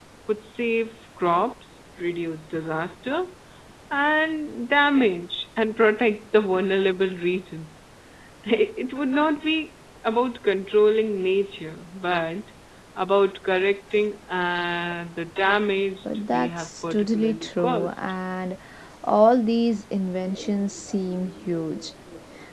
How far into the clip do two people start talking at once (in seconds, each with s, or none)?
16.1 s